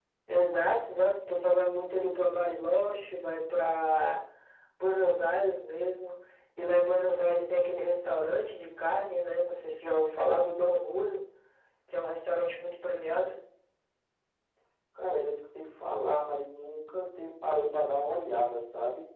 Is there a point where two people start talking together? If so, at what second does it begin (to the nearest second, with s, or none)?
none